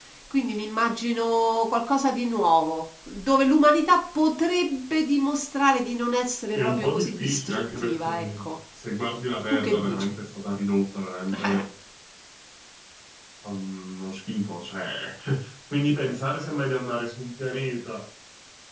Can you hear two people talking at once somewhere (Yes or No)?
Yes